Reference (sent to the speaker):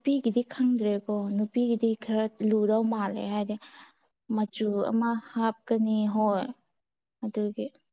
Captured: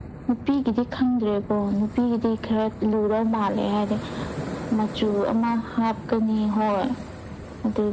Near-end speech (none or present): none